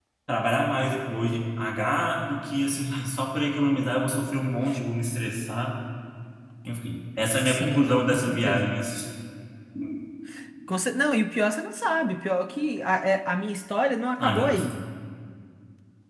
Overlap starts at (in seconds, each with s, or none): 7.4 s